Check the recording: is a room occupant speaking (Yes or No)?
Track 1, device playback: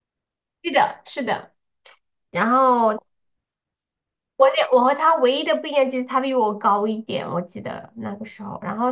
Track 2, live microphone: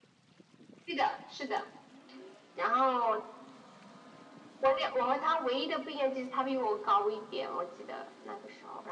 No